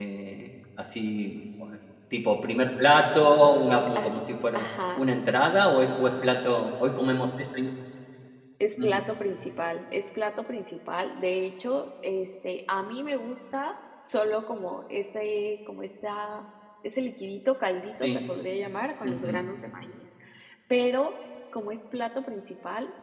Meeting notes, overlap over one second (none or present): none